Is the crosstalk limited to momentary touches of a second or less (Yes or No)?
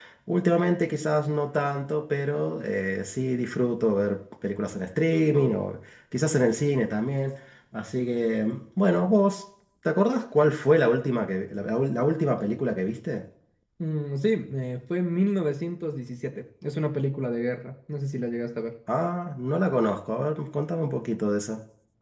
Yes